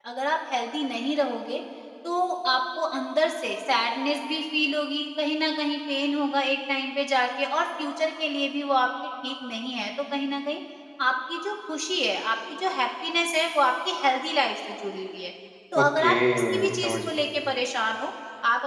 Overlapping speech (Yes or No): Yes